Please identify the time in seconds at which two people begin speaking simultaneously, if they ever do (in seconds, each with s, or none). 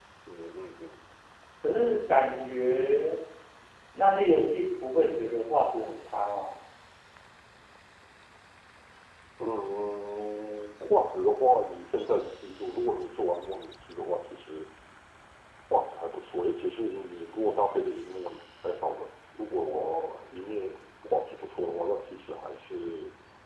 none